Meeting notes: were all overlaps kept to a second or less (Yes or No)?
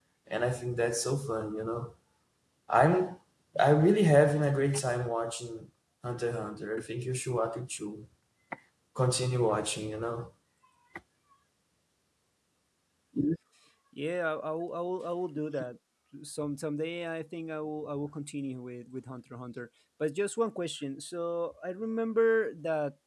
Yes